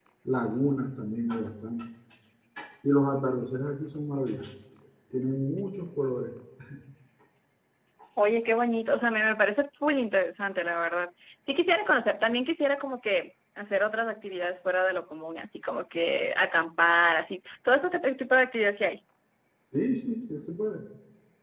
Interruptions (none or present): none